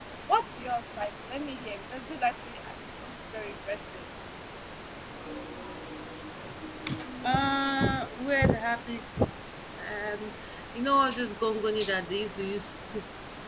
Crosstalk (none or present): none